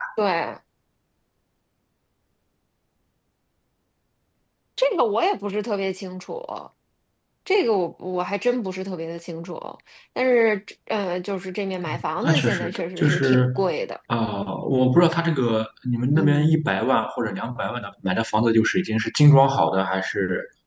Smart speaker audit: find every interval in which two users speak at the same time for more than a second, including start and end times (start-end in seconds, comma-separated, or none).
11.9-13.5